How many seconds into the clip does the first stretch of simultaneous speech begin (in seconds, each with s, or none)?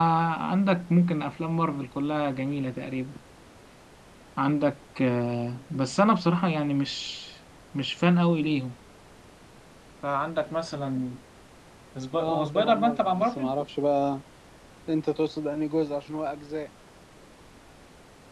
12.2 s